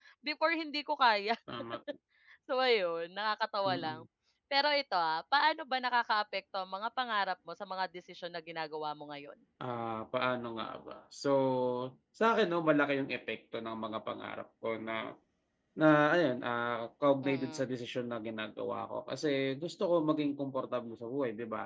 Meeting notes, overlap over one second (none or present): none